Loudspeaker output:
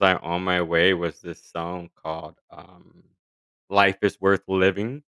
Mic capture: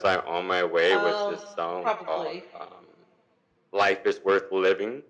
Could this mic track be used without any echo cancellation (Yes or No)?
No